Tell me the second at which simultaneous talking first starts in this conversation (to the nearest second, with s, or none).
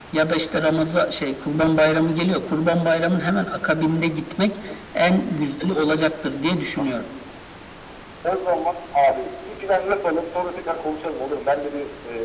none